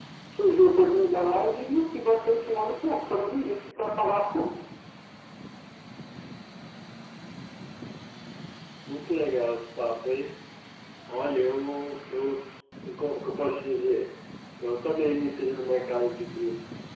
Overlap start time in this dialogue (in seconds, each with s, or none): none